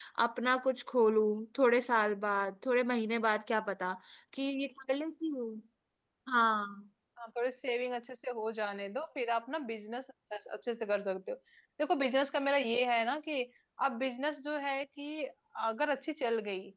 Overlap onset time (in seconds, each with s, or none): none